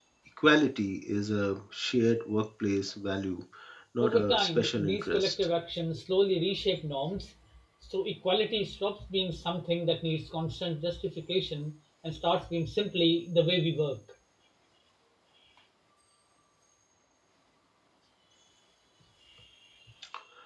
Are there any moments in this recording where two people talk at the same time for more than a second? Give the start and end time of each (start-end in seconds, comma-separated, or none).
4.0-5.3